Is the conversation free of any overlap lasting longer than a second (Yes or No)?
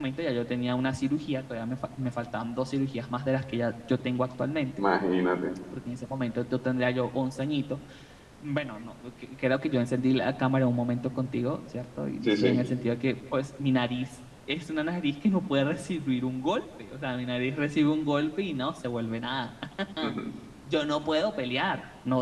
Yes